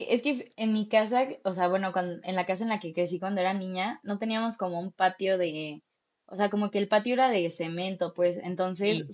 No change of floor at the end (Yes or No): Yes